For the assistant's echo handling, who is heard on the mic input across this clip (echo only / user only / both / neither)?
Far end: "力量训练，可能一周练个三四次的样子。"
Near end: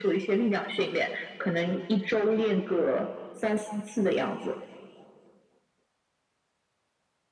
echo only